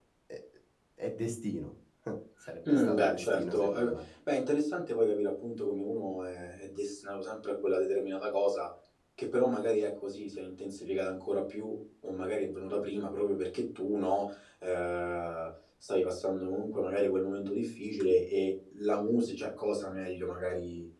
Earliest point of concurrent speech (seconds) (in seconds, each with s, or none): 2.6 s